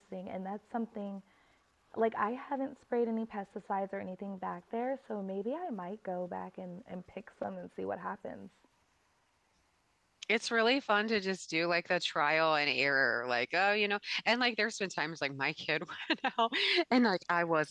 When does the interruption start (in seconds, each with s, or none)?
none